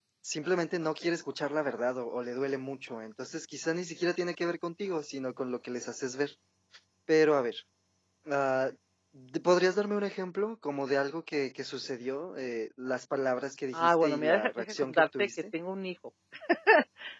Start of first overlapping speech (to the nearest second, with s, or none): 14 s